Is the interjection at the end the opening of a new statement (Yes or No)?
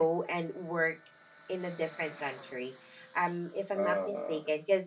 No